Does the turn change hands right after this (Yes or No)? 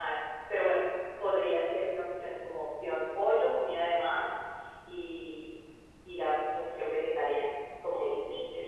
Yes